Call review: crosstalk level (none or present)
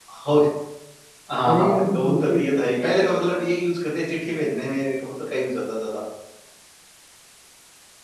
present